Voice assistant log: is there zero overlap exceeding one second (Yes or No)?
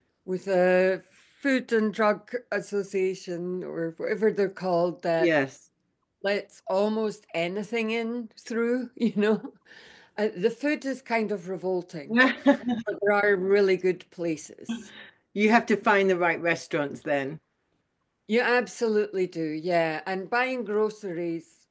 Yes